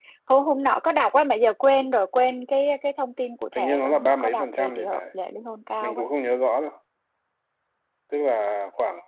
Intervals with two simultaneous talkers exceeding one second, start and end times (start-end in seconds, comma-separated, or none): 3.5-5.0